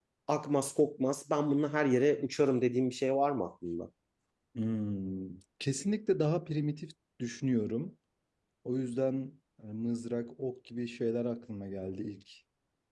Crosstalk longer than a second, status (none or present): none